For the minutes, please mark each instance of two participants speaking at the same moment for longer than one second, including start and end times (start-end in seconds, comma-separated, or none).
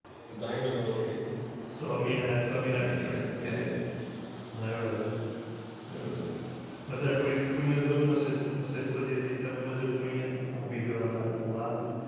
none